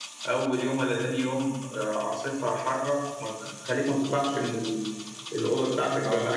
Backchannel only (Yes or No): No